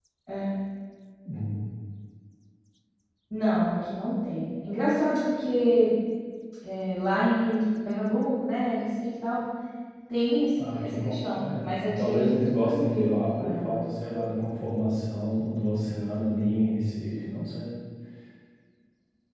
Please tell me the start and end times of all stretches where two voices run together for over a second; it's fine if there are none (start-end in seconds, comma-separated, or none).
10.6-13.8